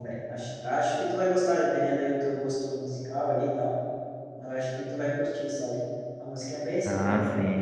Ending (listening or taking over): taking over